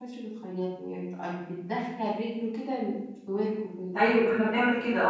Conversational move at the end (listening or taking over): taking over